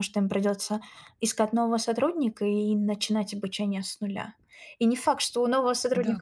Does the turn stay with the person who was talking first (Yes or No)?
Yes